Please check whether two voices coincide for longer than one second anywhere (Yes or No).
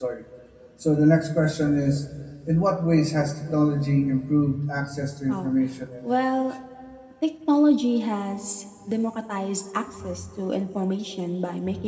No